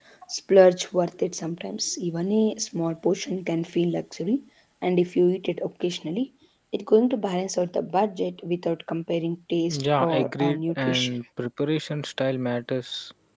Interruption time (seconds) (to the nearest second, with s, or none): 10 s